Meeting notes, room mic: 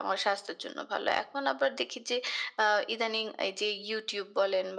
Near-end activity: none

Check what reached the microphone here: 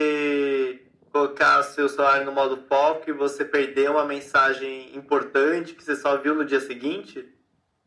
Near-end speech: none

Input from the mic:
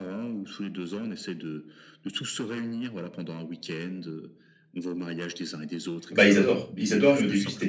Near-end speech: present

